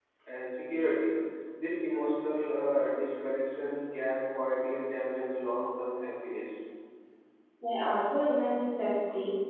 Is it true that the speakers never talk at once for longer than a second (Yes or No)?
Yes